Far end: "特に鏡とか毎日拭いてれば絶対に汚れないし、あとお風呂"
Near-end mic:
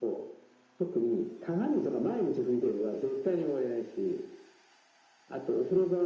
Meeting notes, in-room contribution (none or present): none